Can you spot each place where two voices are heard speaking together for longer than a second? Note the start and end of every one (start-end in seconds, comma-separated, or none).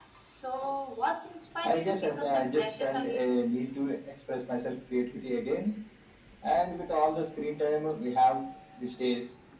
1.6-3.3